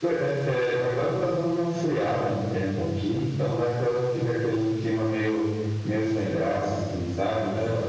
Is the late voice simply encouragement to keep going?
Yes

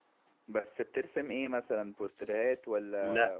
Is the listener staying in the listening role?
No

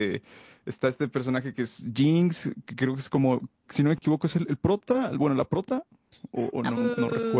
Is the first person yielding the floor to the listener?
Yes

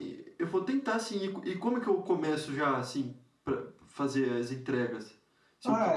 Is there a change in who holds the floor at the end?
Yes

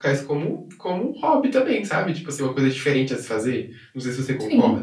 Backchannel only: No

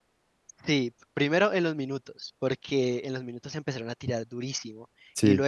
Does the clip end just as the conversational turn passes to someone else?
No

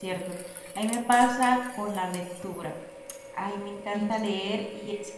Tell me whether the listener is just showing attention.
Yes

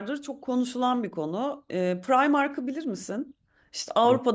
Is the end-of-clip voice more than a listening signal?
No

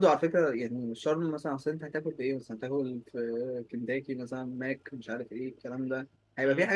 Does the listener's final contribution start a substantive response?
No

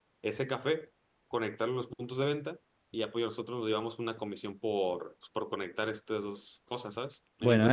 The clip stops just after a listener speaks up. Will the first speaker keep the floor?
No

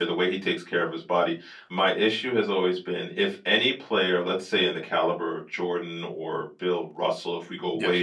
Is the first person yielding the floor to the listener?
No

